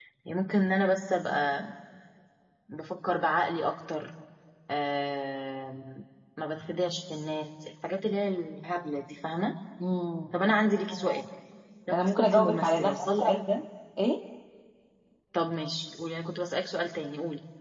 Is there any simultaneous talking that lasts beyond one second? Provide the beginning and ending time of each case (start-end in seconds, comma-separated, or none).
12.1-13.3